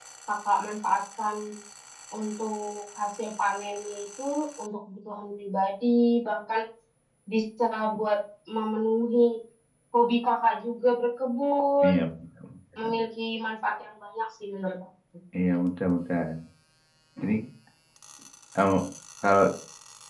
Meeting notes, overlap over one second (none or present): none